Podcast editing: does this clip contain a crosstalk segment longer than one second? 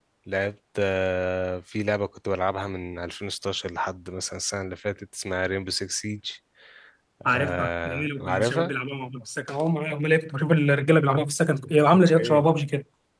Yes, from 7.3 s

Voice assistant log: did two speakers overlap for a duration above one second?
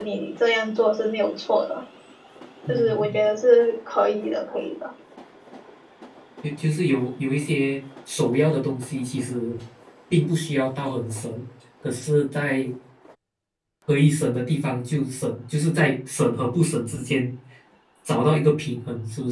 No

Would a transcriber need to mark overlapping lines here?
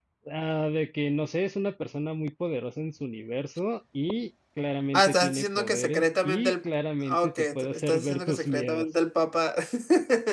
Yes, from 4.9 s

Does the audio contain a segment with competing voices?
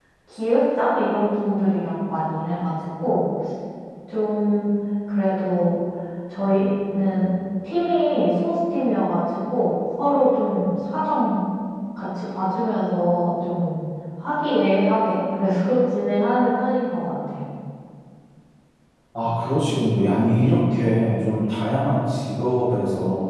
No

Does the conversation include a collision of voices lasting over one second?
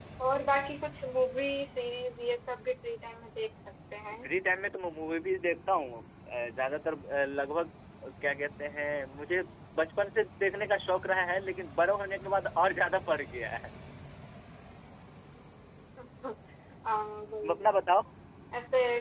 No

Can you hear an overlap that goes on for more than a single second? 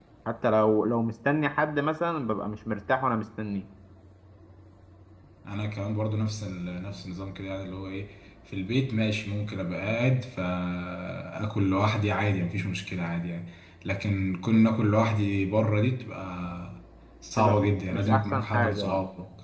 Yes, from 17.4 s

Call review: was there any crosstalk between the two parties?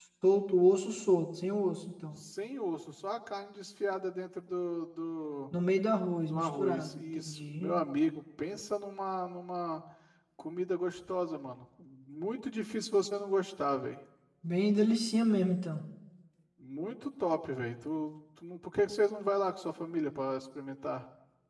Yes, from 6.3 s

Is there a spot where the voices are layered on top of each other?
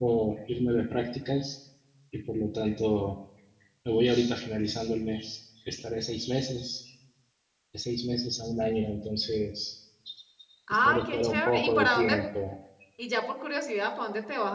Yes, from 10.8 s

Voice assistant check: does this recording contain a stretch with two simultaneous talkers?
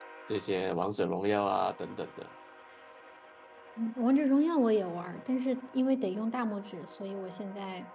No

